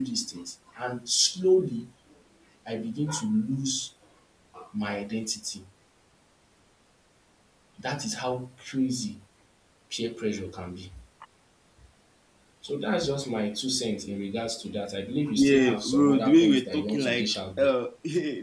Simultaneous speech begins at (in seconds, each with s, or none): 15.4 s